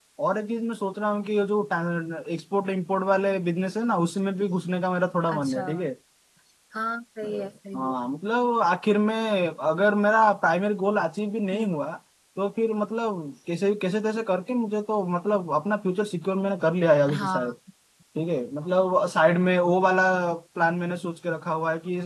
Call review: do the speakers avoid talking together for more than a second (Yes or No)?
Yes